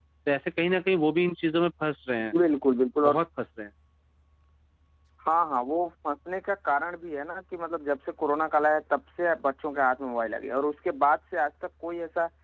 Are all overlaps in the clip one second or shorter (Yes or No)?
Yes